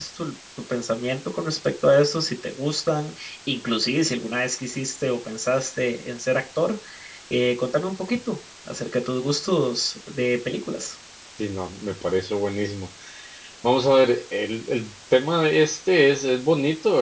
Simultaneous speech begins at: none

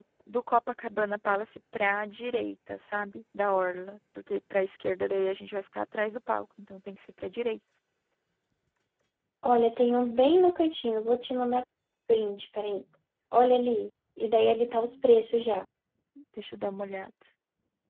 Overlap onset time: none

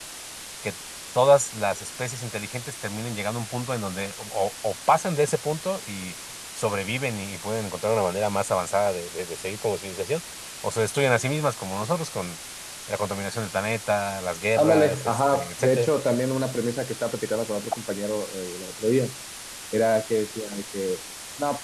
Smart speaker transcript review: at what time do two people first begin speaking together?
14.6 s

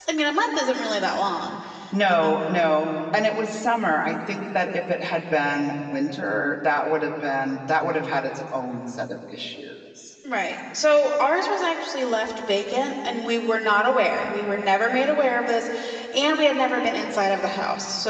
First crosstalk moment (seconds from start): none

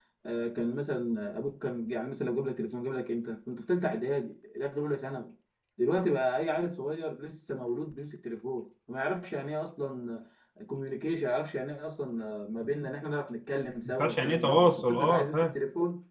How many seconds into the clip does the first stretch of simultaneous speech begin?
13.8 s

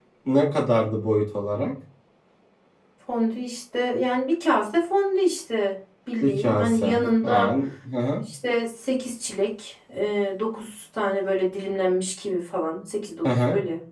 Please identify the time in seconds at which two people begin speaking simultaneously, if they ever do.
6.2 s

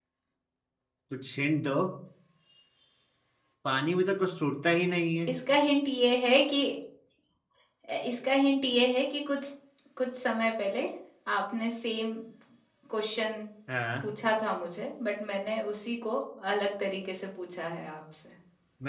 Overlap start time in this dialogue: none

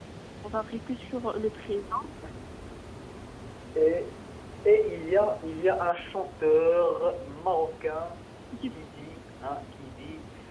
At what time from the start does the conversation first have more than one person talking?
none

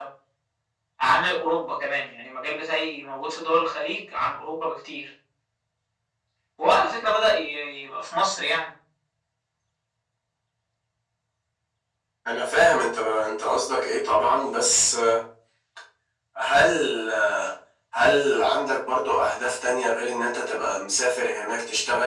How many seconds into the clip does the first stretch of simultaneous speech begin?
none

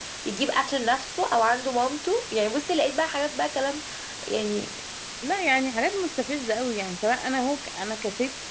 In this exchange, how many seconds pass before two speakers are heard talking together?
none

